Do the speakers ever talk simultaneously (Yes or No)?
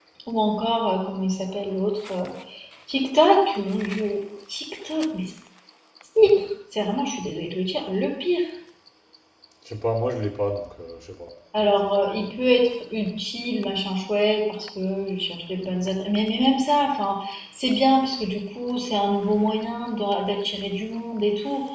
No